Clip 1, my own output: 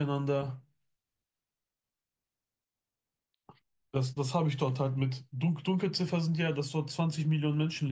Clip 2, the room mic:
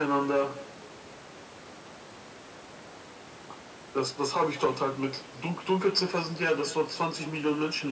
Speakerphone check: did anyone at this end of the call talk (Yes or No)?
No